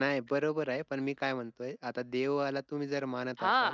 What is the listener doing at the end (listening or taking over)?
taking over